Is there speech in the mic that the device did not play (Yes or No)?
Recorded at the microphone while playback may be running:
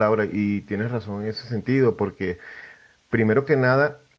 Yes